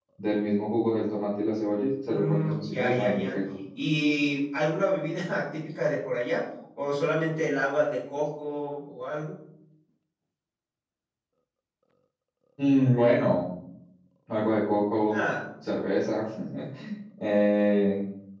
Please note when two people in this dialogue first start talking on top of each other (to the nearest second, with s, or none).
2 s